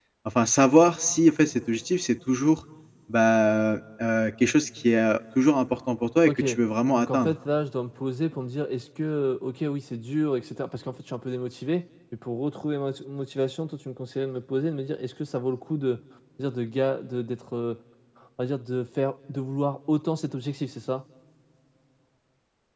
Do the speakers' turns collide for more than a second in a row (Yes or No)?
No